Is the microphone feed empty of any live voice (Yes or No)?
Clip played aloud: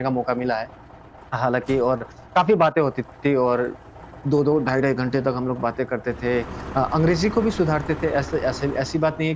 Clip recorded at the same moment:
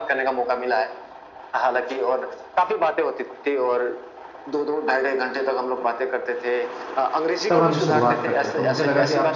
No